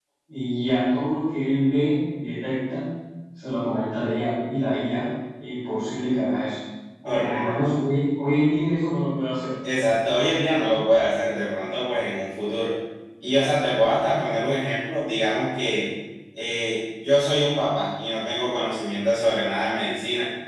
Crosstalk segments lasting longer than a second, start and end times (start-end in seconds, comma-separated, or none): none